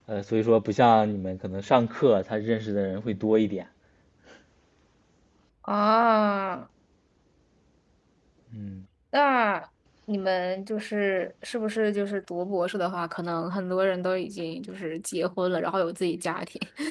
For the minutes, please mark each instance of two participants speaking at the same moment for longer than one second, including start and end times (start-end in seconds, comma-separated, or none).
none